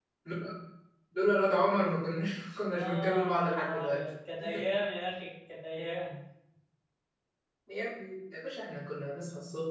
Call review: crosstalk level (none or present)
present